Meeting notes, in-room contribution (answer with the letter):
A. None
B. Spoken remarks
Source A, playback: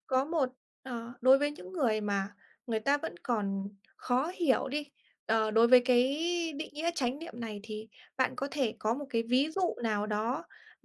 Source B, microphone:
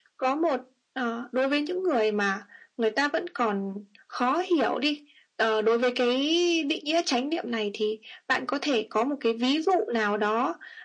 A